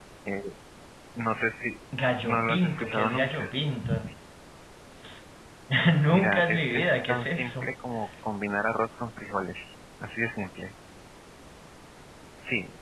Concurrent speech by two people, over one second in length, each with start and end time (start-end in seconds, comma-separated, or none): 2.2-3.5, 6.1-7.7